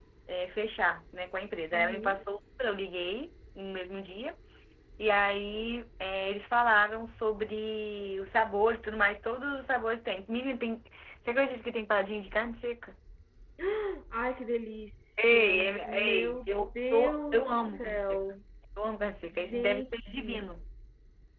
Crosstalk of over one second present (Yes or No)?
Yes